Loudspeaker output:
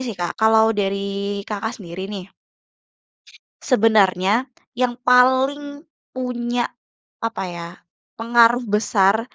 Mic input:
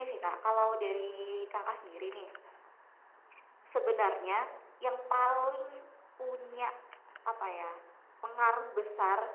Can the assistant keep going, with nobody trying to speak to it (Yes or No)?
Yes